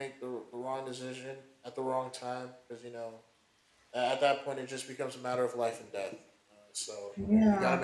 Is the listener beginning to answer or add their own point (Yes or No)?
No